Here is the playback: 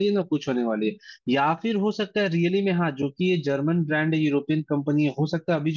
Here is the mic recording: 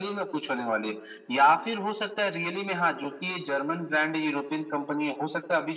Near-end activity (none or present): none